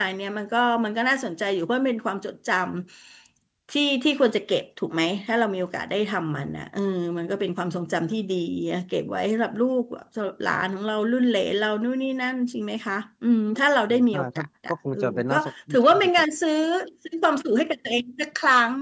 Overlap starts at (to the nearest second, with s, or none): 14 s